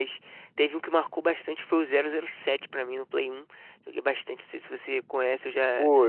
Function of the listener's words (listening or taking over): taking over